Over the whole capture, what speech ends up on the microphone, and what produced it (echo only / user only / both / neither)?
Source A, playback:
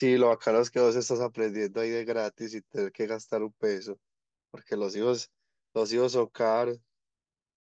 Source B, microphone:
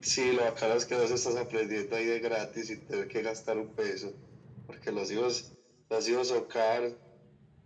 echo only